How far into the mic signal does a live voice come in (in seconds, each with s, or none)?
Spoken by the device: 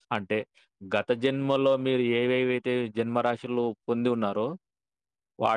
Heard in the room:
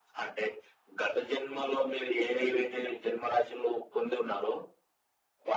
none